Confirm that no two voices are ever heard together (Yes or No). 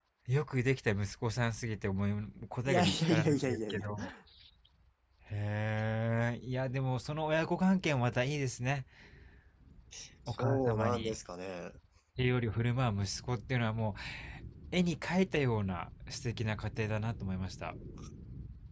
No